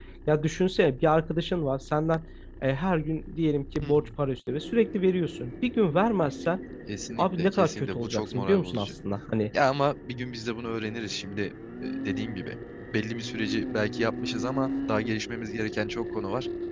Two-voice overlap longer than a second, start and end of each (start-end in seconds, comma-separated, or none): 7.2-8.9